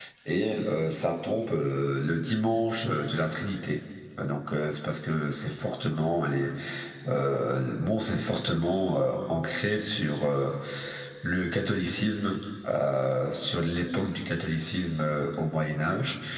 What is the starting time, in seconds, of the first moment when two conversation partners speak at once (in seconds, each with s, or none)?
none